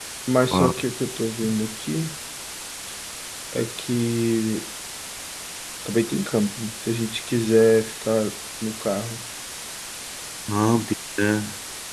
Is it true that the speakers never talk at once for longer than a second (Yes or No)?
Yes